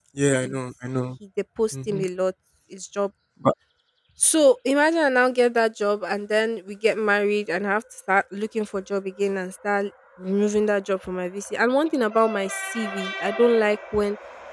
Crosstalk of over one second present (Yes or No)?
No